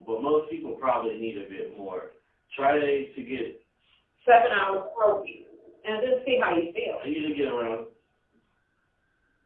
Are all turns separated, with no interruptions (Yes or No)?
Yes